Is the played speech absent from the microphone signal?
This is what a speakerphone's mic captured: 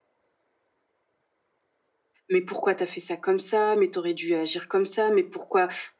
Yes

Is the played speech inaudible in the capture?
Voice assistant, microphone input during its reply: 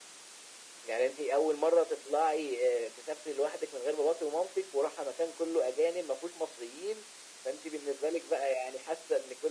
No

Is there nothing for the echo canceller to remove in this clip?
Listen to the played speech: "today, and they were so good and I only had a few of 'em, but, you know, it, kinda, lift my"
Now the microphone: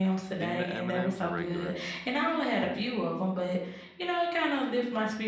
No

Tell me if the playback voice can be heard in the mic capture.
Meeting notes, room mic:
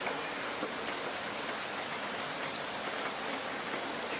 No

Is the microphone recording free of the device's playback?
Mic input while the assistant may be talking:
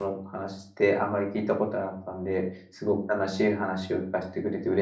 Yes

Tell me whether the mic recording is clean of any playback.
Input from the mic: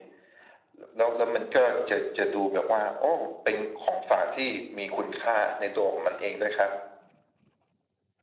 No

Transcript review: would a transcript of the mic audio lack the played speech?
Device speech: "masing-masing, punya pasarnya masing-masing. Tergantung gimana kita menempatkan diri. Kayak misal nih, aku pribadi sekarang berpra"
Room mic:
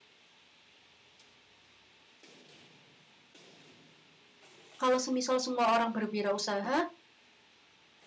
Yes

